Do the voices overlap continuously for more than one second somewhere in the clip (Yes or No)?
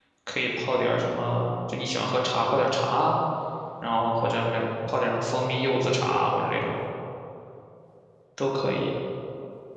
No